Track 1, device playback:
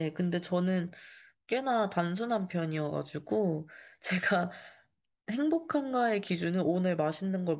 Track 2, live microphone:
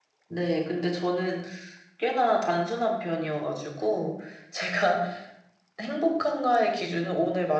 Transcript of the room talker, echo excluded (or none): none